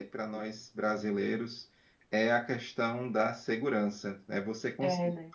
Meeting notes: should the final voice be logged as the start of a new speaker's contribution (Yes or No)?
No